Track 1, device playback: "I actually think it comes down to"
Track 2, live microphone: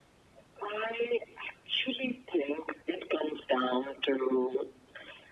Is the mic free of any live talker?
Yes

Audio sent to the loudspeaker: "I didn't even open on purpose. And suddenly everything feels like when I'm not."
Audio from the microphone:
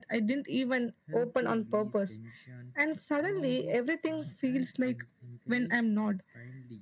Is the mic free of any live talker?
No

